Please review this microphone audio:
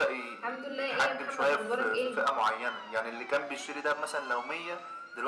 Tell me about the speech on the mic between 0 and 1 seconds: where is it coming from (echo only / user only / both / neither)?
both